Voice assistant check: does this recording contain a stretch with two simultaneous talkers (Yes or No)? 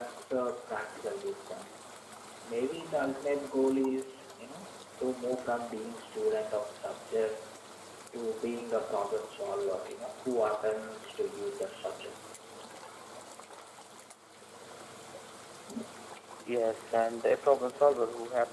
No